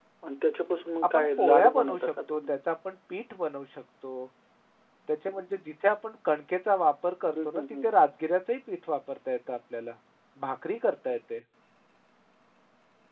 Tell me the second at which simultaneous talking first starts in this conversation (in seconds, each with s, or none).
1.1 s